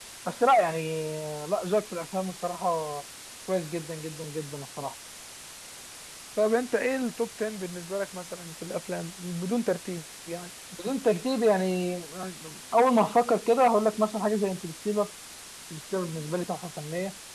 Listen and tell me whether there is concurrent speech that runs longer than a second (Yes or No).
No